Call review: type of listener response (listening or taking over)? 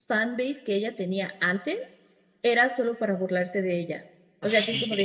listening